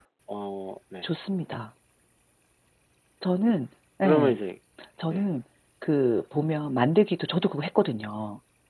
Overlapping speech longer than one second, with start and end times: none

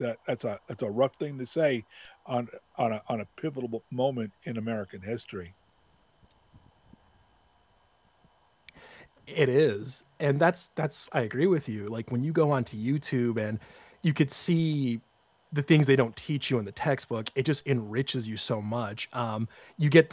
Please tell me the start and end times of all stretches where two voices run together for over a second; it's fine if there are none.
none

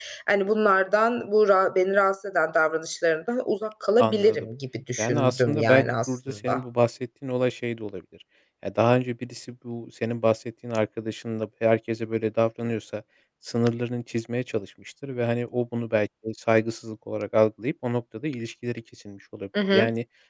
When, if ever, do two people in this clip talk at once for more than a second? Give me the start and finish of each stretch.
5.0-6.5

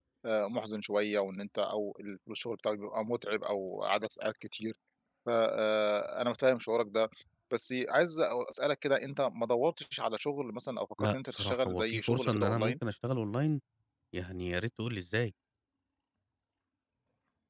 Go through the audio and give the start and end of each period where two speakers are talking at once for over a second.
11.0-12.7

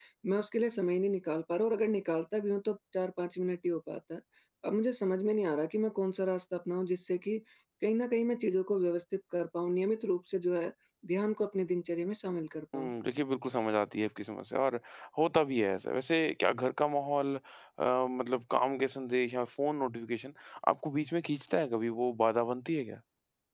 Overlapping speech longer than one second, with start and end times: none

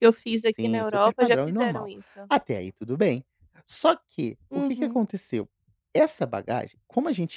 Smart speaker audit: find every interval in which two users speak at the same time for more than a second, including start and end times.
0.6-1.9

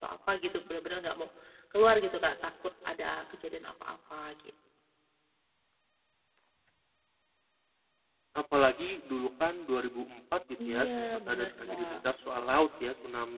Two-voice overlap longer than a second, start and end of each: 10.7-12.0

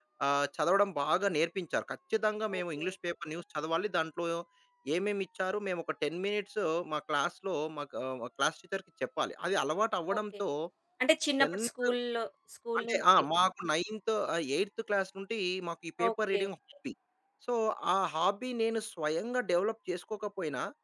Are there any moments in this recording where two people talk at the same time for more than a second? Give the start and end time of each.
none

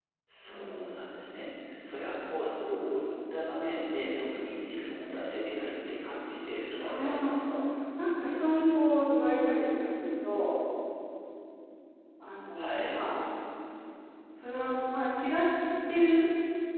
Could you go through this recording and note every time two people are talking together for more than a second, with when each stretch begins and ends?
none

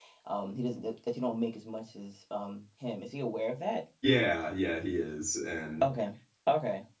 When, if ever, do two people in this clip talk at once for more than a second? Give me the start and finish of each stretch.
none

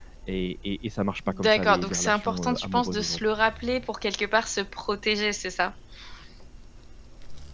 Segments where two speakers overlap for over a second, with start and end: 1.3-3.3

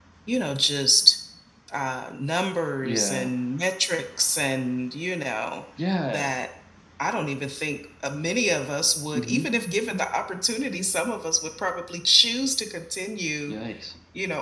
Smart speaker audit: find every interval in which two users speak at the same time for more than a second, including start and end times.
none

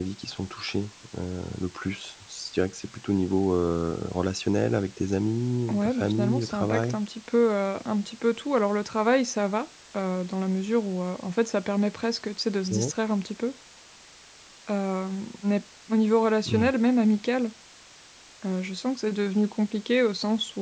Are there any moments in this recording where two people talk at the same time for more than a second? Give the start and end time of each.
5.7-7.0

